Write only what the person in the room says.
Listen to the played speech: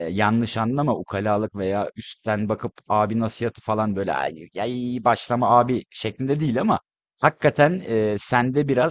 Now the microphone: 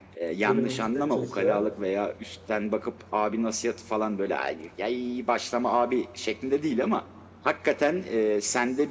Bölümün Türkçe şu an.

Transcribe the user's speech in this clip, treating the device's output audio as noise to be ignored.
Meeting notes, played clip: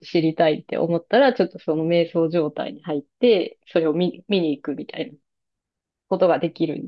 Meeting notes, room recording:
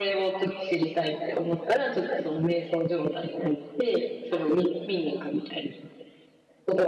none

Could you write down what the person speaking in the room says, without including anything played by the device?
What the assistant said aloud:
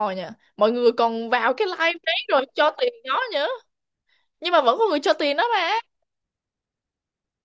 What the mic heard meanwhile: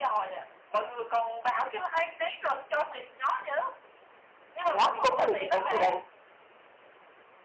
thế á tôi không để ý cái vụ đấy

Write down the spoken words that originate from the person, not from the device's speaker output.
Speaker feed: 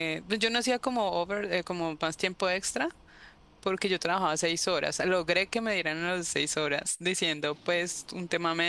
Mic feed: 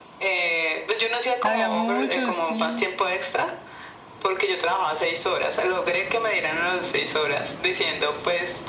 Había muchos, sí,

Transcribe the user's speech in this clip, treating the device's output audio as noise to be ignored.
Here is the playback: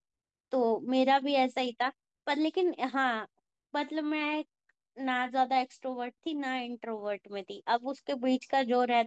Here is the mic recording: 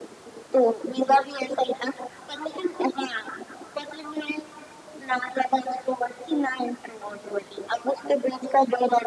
none

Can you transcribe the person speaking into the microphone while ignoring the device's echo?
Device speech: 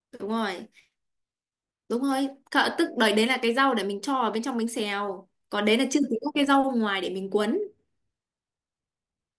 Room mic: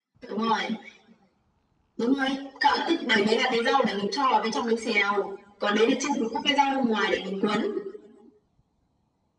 none

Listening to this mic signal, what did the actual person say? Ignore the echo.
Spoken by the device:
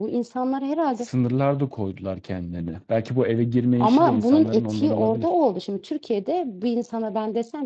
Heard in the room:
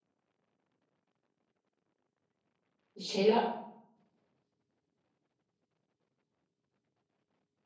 Şeyler

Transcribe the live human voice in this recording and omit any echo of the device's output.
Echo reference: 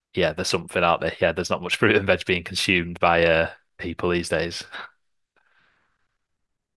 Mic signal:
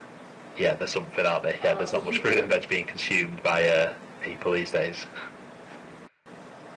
oh, so you've been,

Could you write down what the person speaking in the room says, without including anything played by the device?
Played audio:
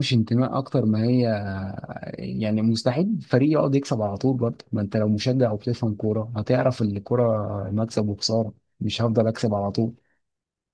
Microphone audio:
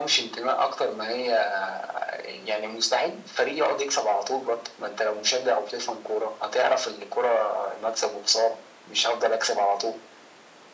none

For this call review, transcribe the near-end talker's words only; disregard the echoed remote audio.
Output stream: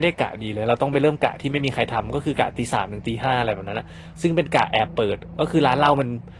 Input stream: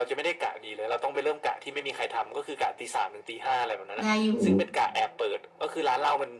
ได้อยู่

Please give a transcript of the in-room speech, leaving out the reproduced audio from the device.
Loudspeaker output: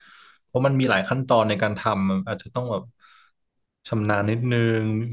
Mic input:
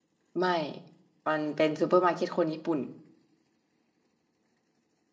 ไม่ มันเป็นซูเปอร์มาร์เก็ตคนญี่ปุ่น

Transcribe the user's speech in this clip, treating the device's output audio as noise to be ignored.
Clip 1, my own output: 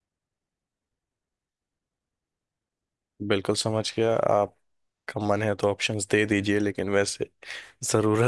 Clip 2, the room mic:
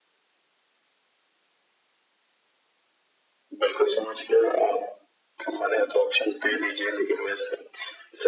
none

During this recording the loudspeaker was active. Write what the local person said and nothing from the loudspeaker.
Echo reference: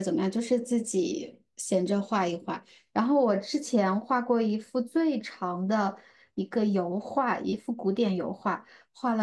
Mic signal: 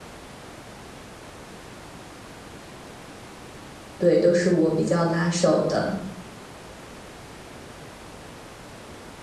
对，都是我比较拿手的。

